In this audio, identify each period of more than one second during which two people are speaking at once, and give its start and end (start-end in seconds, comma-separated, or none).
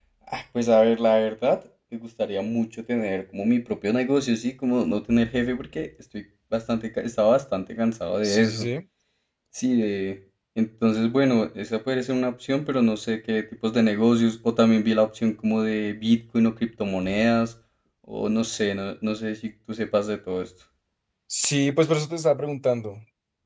none